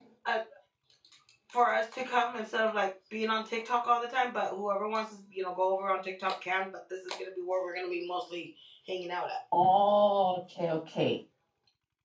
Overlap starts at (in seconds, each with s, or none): none